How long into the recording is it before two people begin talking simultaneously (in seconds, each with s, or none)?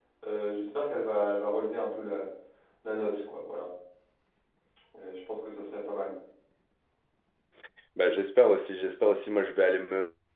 none